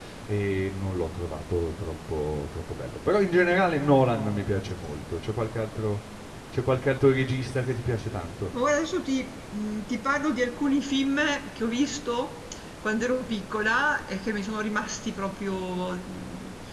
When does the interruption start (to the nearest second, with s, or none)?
none